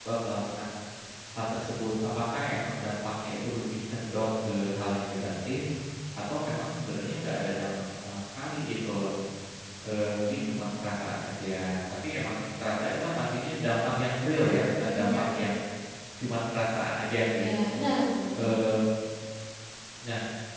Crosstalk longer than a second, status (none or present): none